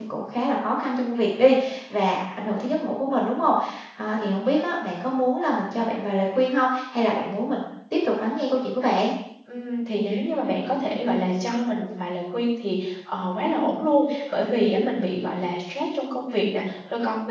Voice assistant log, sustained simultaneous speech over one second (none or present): none